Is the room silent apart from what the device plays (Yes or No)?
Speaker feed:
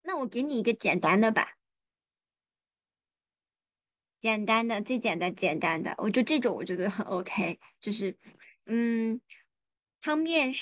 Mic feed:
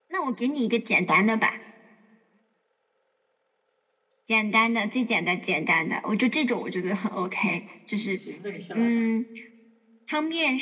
No